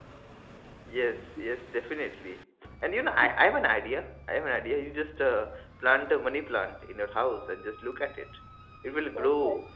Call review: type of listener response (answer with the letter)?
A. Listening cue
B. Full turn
A